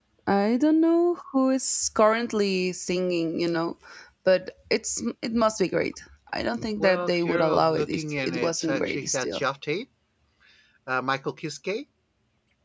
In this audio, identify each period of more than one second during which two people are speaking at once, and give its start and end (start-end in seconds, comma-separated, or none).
6.8-9.4